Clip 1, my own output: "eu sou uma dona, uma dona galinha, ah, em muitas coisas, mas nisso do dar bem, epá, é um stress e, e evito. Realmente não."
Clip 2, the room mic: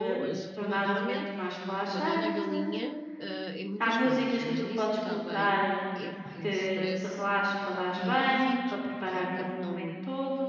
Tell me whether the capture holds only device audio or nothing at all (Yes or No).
No